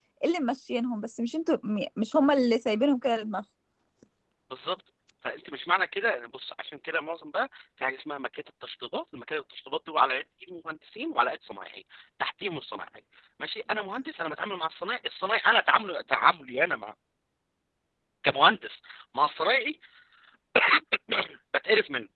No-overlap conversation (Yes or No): Yes